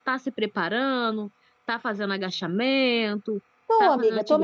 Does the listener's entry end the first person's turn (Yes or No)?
Yes